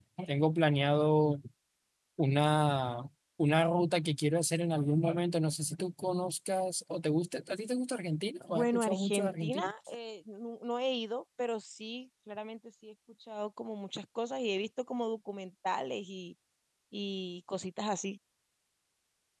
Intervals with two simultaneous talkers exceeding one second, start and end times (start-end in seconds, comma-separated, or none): 8.5-9.7